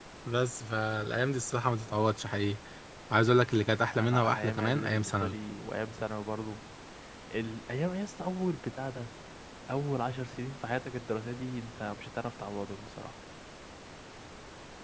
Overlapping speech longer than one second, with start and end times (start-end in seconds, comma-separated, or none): 3.9-5.4